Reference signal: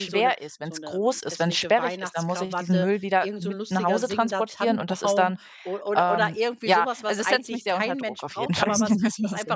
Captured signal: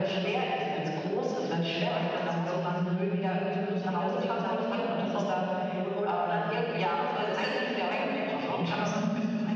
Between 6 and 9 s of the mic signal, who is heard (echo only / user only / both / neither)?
echo only